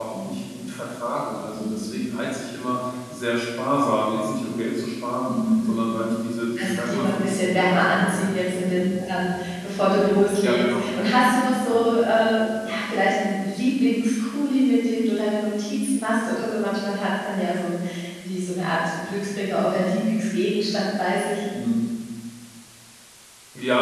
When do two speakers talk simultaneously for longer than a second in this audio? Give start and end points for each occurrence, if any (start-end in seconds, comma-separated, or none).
6.6-8.4